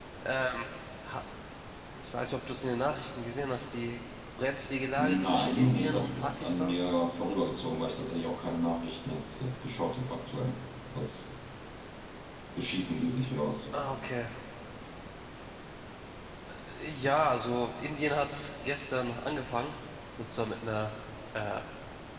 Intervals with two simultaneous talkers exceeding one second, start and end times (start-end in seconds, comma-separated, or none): 5.0-6.8